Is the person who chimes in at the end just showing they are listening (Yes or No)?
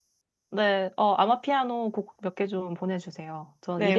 No